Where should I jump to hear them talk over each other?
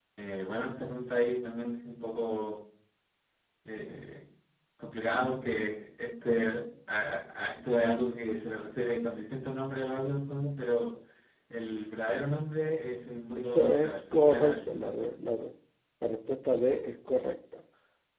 13.4 s

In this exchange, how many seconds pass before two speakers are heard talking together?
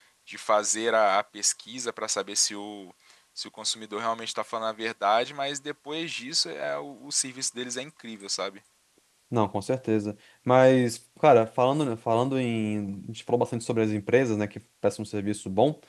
none

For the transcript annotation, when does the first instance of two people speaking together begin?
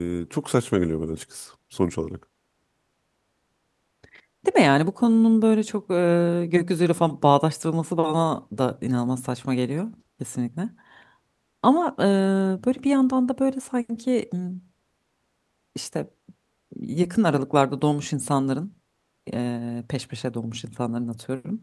none

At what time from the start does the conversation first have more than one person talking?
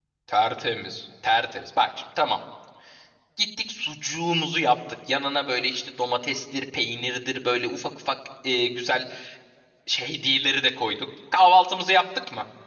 none

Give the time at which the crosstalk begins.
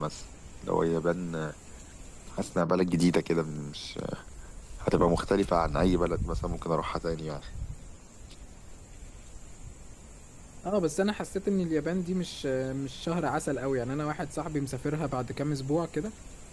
none

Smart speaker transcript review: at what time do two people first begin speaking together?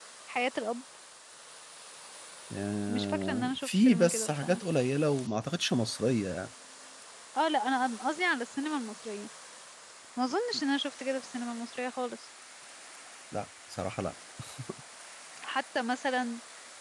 2.9 s

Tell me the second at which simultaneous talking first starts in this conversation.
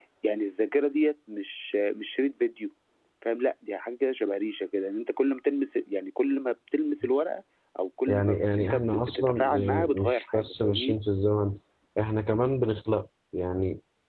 8.1 s

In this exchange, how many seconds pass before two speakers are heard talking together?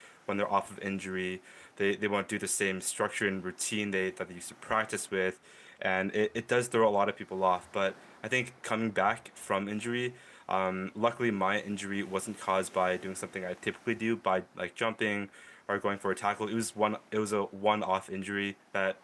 none

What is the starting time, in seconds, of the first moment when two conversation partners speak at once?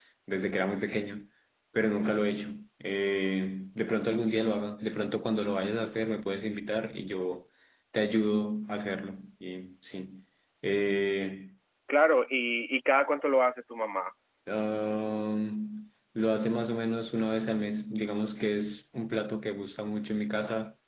none

